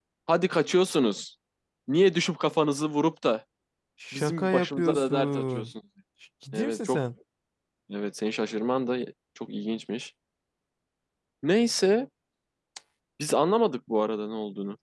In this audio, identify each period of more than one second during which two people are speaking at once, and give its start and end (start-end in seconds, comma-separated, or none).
4.1-5.7